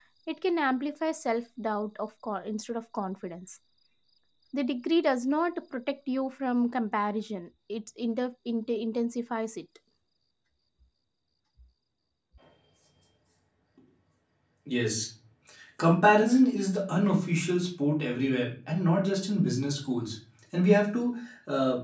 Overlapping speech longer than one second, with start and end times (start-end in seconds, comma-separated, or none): none